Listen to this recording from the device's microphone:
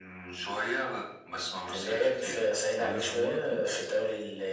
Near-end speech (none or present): present